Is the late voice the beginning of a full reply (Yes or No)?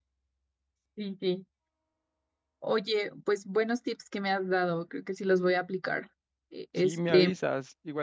Yes